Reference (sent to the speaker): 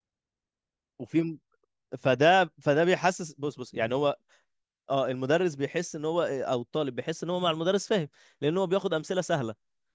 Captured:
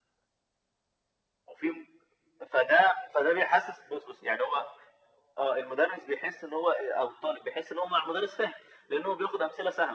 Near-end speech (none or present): none